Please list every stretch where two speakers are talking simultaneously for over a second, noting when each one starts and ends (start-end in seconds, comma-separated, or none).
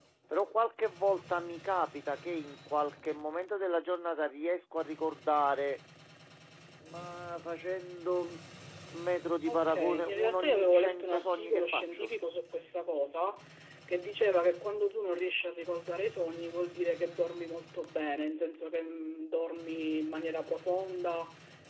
9.5-12.1